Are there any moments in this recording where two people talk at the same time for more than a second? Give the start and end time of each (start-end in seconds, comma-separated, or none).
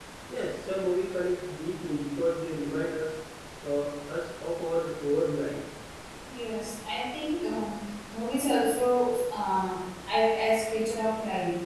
none